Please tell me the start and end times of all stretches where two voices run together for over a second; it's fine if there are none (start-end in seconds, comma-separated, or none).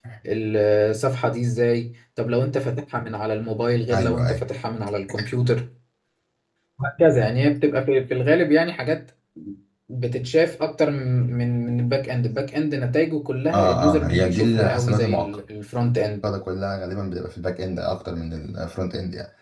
13.5-15.3